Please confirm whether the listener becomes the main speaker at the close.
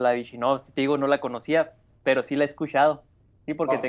Yes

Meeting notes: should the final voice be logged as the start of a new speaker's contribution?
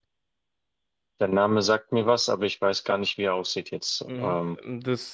Yes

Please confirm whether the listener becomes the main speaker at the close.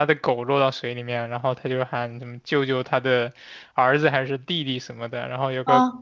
No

